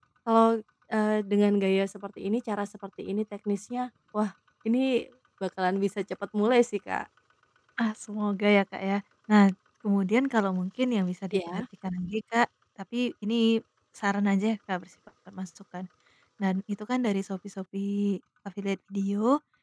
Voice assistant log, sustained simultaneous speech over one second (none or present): none